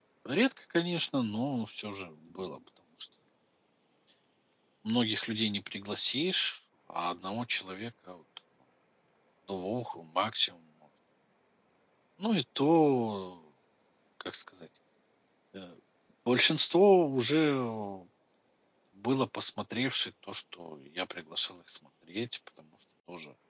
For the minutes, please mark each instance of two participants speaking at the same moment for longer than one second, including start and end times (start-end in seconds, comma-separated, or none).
none